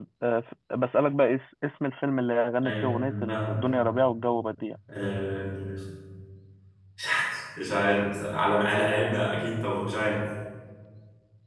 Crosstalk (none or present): present